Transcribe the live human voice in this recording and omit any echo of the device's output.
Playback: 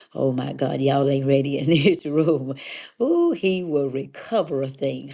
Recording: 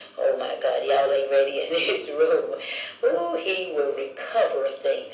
none

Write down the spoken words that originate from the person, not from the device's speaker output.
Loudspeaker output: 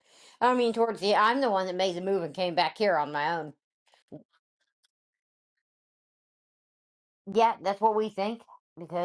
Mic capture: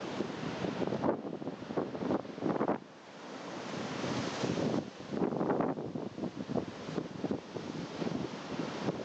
none

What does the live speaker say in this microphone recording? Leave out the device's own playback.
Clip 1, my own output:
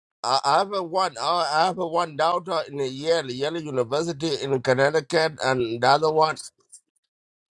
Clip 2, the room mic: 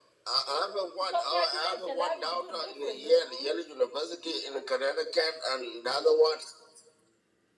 Congratulations, that is good. Good for you. Mm-hmm.

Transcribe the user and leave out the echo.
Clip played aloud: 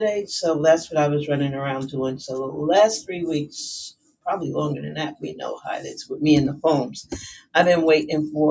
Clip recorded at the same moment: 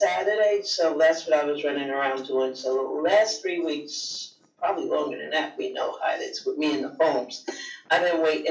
none

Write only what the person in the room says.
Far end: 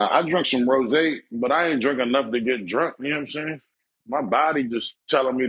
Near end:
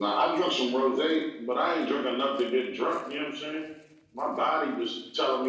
none

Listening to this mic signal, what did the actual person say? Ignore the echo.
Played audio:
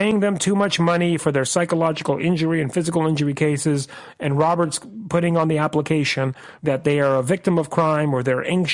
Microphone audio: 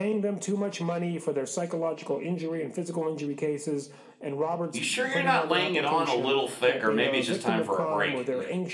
You sure you're not laying it on a little thick, or maybe it's just time for a break?

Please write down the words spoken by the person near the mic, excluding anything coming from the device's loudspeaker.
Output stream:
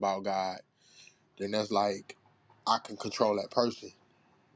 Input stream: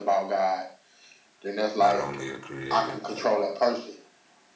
not only a creator, but

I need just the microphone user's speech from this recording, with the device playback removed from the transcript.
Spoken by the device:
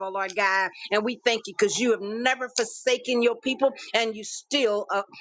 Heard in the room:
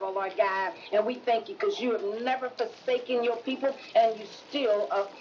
none

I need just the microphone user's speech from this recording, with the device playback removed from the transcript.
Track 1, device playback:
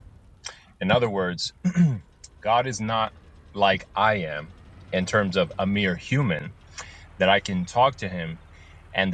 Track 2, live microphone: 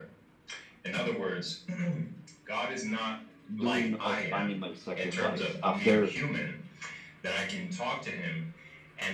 doing of animal sacrifice. After

